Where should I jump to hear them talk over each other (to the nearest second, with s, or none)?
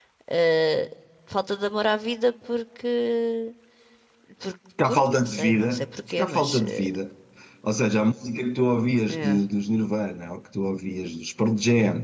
5 s